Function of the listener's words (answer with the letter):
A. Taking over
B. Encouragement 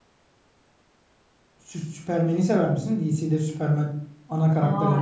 A